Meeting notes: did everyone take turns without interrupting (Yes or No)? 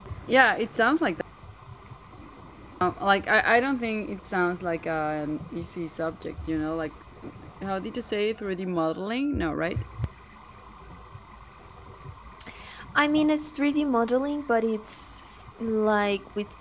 Yes